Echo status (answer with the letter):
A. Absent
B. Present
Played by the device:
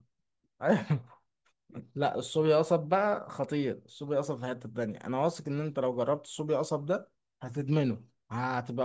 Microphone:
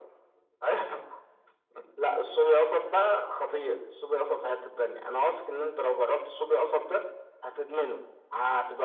B